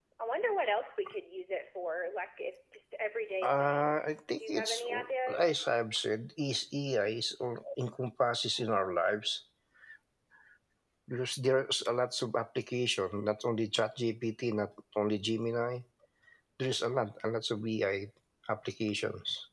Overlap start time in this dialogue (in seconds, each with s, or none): 3.4 s